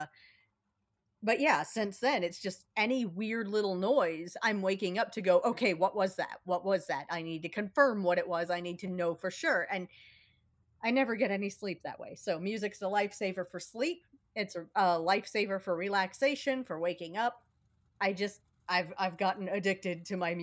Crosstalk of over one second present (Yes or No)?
No